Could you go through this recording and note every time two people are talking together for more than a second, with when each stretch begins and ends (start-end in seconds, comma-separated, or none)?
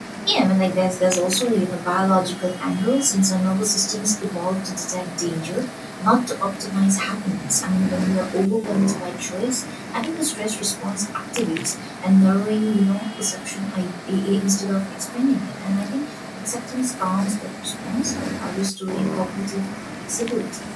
none